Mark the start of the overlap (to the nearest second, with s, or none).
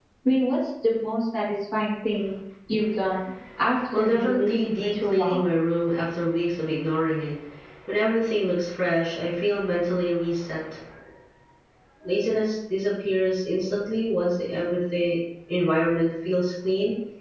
4 s